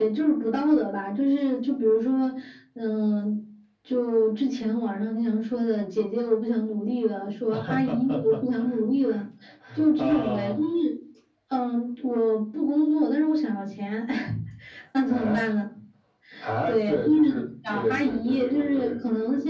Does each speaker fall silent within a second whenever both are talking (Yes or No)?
No